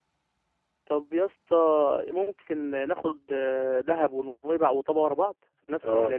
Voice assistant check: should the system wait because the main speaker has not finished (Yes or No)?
No